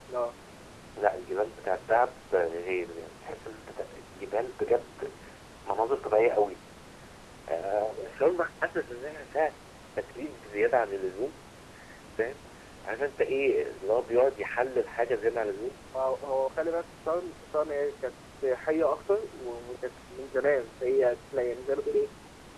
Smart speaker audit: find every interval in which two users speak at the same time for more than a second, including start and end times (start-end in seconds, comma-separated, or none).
none